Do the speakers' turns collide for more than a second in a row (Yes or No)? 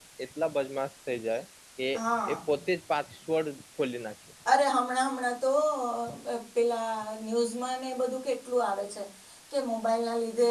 No